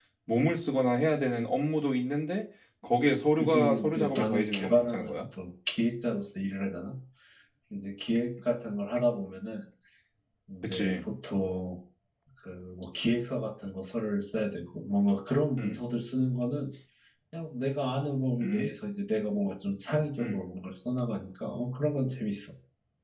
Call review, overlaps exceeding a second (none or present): present